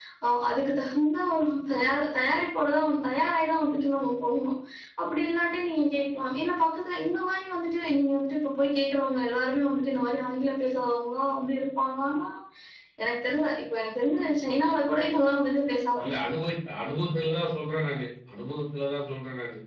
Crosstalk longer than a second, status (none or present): none